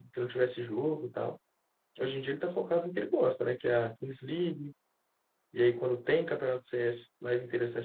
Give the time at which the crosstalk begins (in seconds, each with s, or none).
none